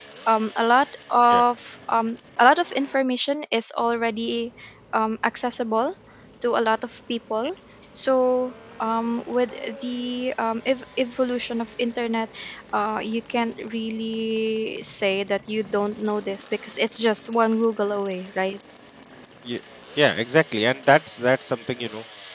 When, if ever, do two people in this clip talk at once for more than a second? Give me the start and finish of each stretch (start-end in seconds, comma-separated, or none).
none